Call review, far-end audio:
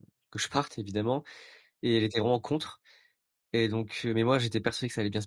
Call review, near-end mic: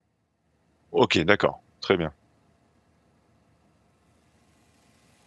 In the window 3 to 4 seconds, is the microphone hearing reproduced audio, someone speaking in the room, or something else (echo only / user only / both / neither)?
neither